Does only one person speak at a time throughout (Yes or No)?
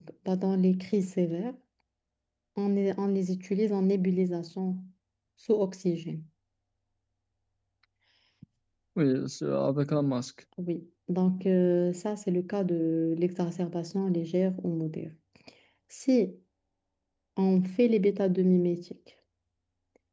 Yes